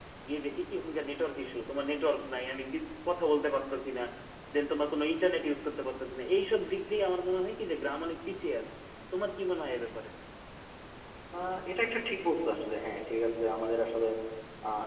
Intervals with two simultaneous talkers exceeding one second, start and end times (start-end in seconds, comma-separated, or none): none